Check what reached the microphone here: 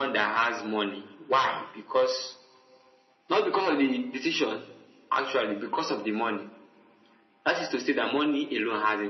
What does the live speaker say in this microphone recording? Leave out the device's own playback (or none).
none